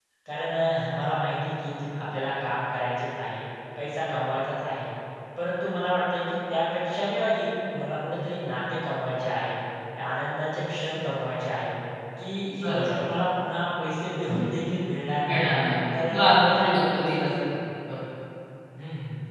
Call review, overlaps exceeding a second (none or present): present